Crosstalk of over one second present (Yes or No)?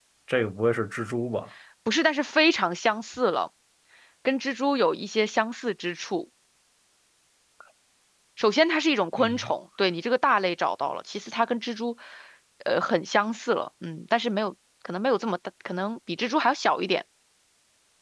No